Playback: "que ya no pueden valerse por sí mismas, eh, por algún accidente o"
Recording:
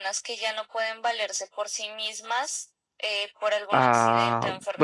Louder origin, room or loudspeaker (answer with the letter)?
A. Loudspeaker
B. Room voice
B